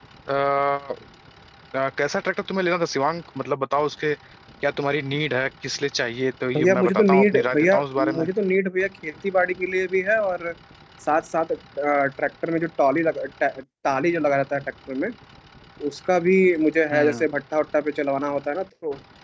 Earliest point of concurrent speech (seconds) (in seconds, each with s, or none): 6.6 s